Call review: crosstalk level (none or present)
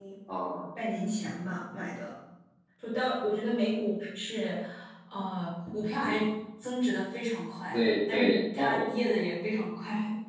present